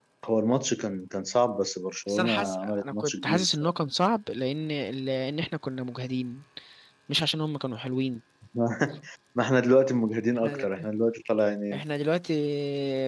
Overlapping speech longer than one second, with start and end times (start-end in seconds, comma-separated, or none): 2.1-3.4